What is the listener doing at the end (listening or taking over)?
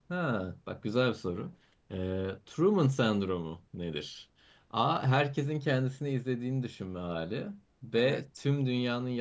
listening